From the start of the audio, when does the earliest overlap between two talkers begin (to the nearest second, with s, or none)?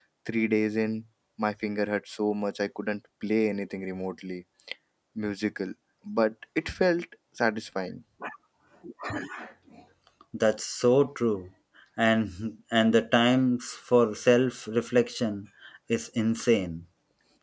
none